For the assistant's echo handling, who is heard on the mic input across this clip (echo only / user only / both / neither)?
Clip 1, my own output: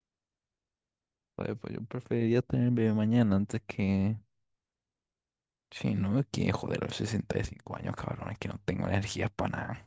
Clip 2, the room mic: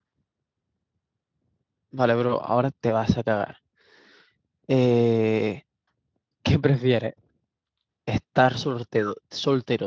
user only